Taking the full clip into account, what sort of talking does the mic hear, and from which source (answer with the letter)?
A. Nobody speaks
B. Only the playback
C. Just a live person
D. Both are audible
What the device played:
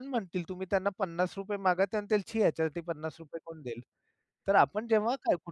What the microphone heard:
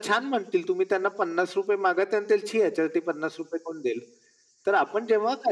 B